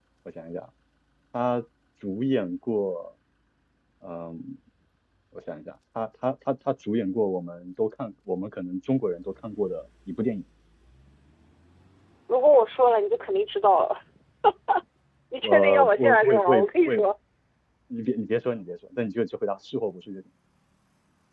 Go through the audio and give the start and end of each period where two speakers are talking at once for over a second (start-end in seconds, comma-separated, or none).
15.4-16.9